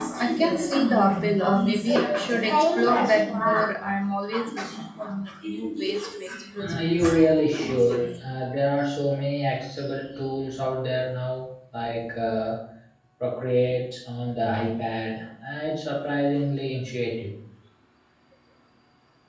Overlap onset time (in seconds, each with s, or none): 6.6 s